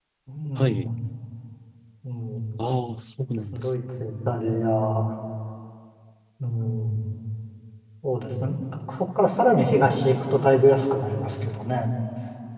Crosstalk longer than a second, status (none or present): none